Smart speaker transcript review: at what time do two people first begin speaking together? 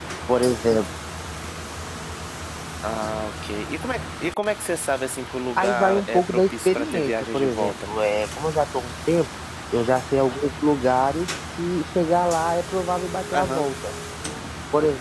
5.6 s

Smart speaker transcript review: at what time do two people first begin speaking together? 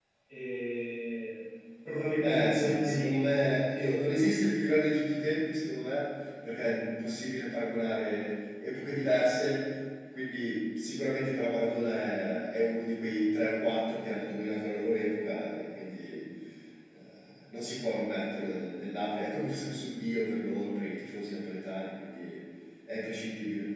2.2 s

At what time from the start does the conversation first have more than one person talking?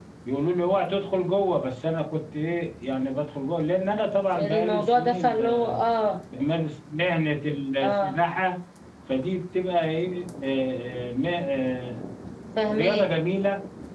4.3 s

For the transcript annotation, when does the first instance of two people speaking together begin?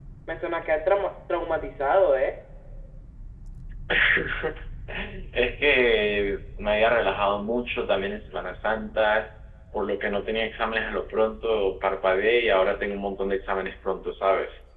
none

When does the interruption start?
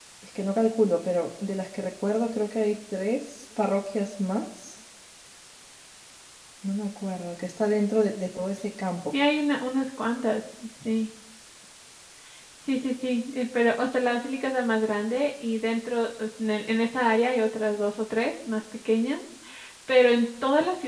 none

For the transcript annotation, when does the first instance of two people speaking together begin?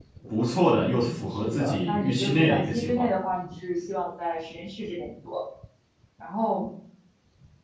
0.8 s

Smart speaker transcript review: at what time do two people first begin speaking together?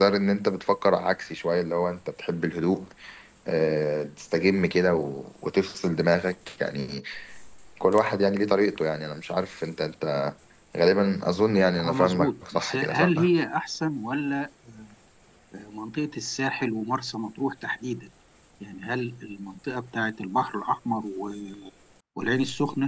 11.8 s

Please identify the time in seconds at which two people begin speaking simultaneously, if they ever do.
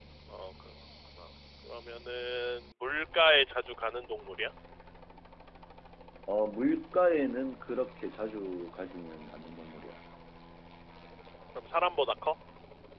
none

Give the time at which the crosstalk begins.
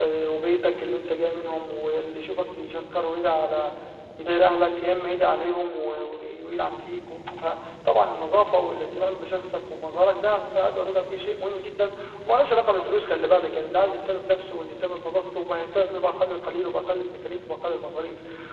none

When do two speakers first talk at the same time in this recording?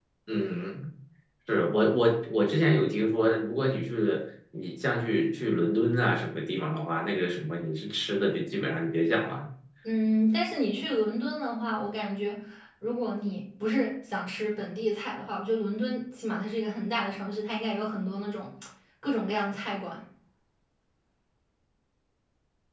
none

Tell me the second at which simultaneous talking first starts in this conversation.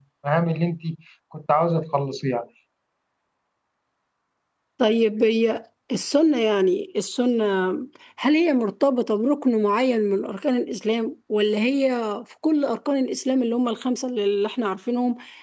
none

